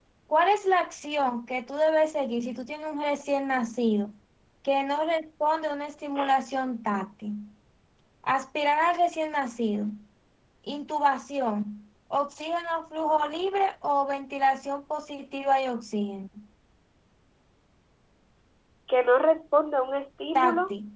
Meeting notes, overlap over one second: none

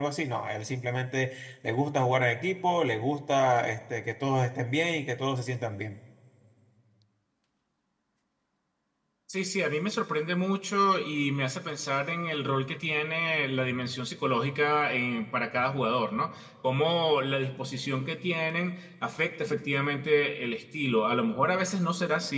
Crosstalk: none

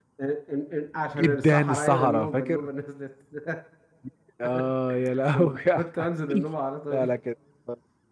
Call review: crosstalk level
present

